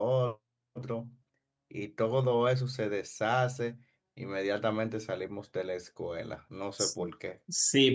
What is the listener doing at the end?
taking over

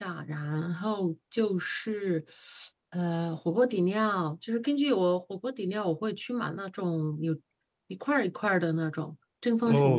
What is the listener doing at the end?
taking over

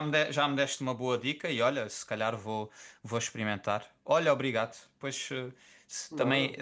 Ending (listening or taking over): listening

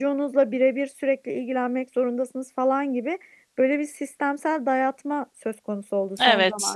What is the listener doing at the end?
listening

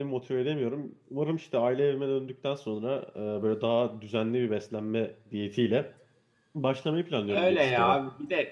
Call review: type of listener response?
taking over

